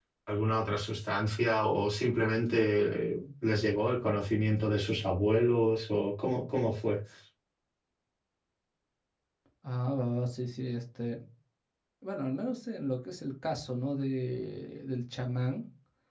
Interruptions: none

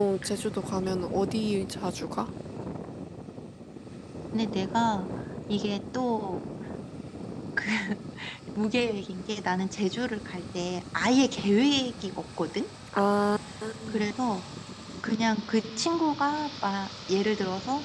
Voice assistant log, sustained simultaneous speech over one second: none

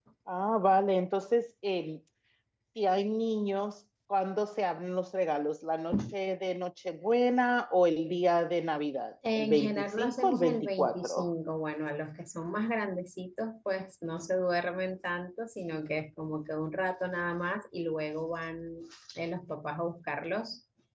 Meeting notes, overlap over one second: present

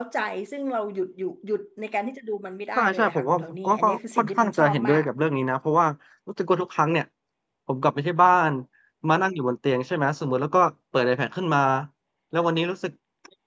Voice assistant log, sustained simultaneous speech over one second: present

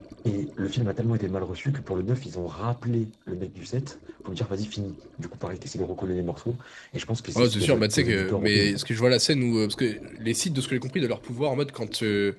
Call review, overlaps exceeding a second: present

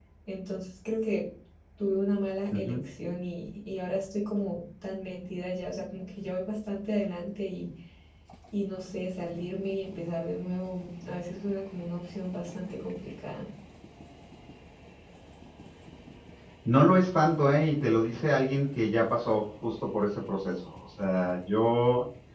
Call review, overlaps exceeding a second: none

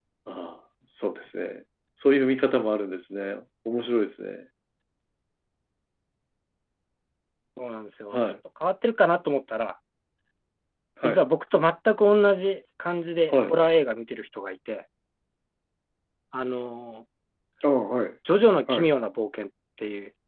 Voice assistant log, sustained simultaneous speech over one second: none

